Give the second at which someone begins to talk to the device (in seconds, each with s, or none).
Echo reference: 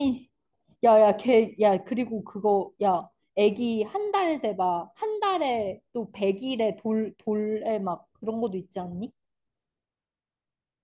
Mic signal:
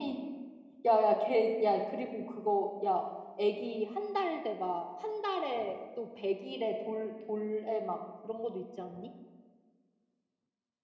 none